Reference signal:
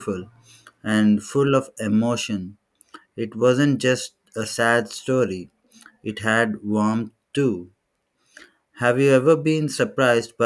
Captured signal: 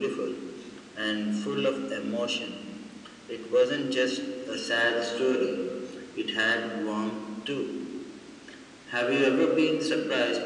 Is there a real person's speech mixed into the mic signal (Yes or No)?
No